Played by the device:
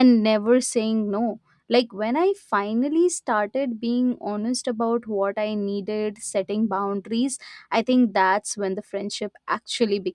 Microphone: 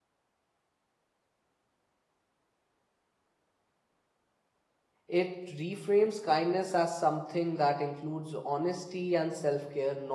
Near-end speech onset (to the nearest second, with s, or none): 5 s